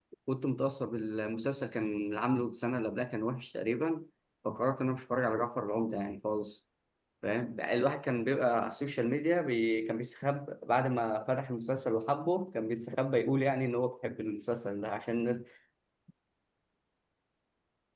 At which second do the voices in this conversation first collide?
none

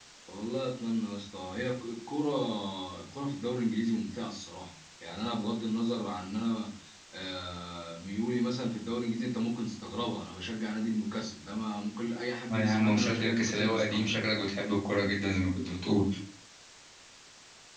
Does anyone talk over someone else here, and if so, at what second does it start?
12.5 s

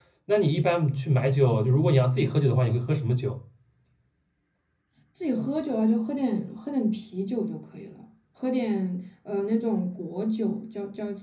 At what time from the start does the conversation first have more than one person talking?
none

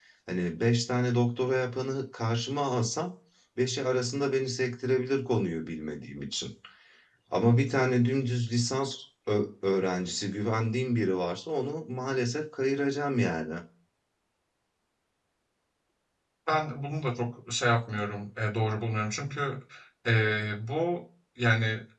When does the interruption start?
none

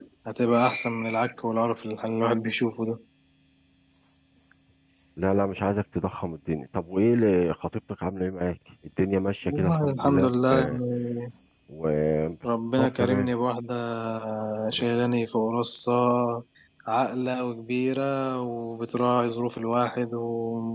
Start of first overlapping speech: 9.5 s

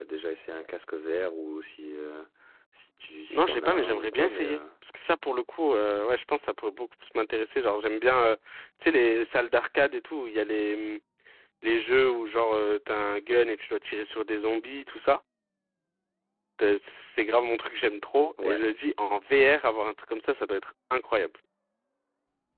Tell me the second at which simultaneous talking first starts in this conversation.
3.3 s

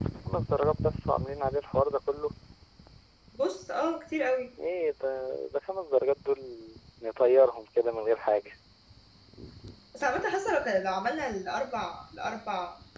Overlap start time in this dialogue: none

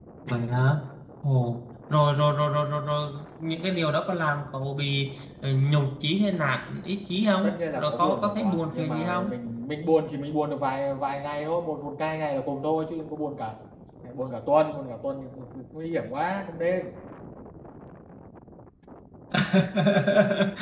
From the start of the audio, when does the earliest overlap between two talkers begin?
7.4 s

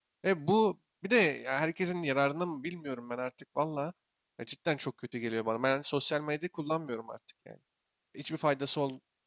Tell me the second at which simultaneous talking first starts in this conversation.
none

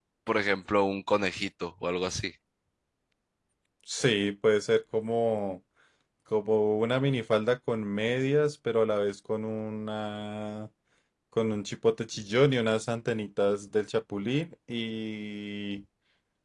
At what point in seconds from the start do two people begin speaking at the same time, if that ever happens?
none

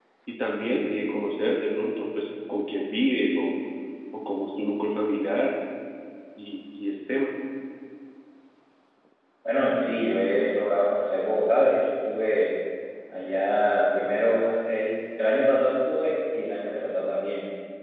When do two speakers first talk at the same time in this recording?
none

